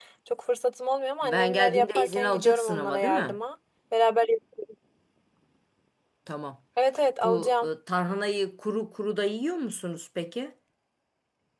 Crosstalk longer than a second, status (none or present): present